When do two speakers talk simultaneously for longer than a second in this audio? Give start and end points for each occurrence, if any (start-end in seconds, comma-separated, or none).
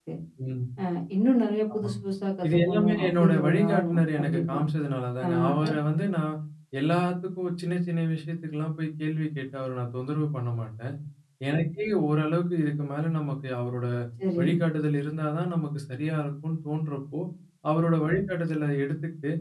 2.4-4.6